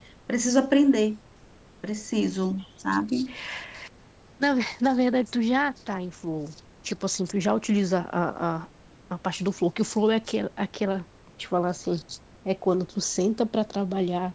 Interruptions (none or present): none